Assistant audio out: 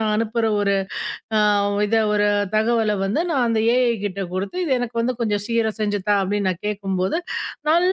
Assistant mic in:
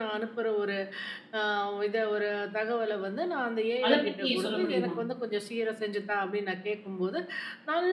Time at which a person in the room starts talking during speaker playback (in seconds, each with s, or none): 3.8 s